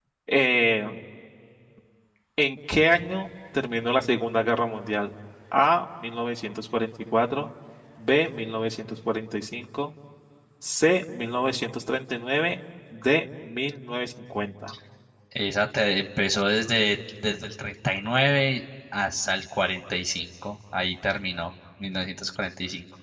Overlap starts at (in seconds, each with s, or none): none